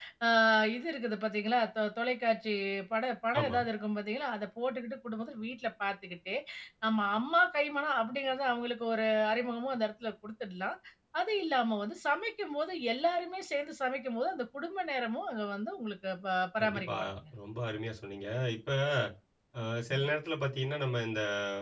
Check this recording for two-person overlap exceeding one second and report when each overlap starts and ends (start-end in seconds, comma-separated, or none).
none